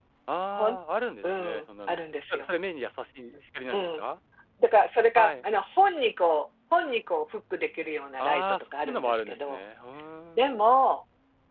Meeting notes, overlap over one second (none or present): present